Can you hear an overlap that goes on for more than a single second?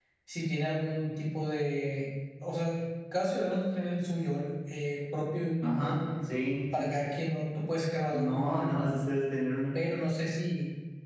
No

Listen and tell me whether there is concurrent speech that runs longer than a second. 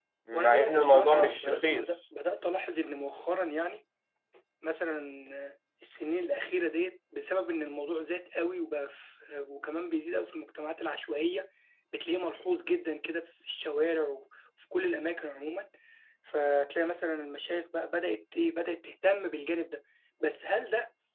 Yes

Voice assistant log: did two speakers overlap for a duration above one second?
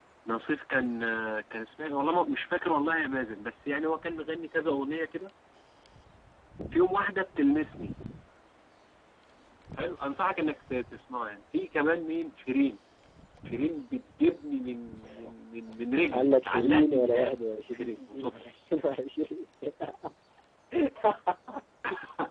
Yes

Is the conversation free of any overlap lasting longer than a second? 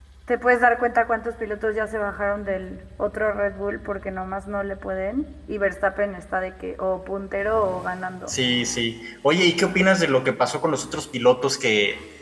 Yes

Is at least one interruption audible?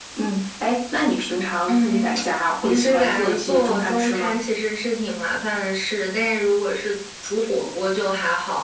Yes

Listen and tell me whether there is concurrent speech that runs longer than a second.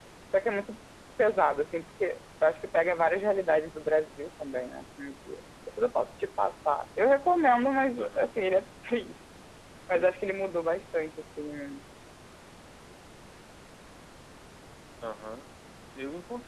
No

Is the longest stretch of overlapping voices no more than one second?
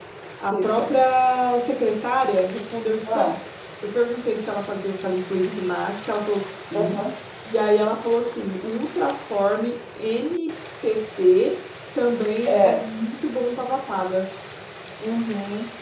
Yes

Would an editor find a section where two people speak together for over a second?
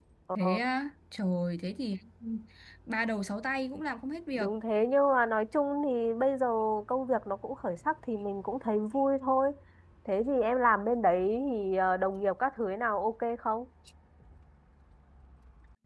No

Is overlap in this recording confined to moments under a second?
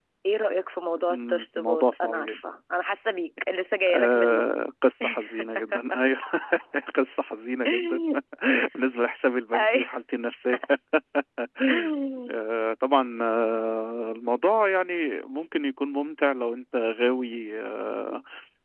No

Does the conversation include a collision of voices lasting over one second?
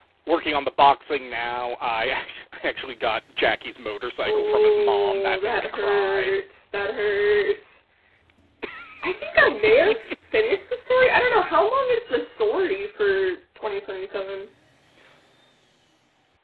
Yes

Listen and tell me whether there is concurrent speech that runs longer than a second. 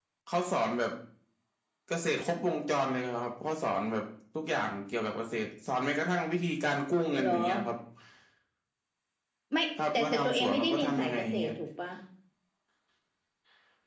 Yes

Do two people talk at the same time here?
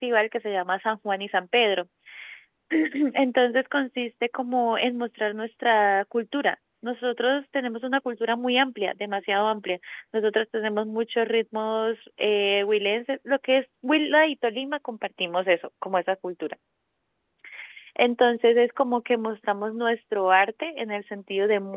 No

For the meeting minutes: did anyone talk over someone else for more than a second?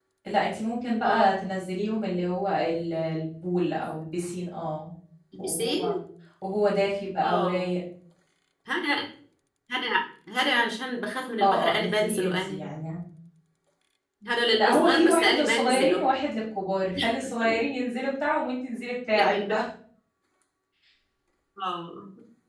Yes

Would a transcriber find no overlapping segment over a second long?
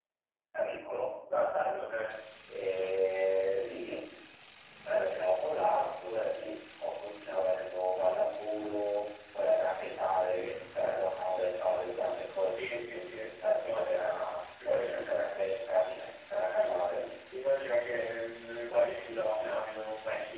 No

